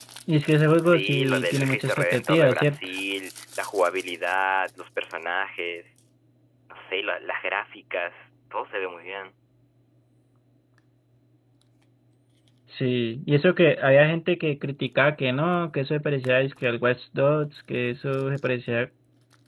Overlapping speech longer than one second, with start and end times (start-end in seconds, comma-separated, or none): 0.8-2.9